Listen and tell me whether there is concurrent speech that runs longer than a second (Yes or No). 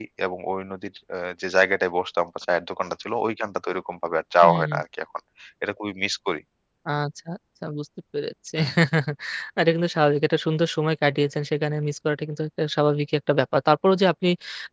No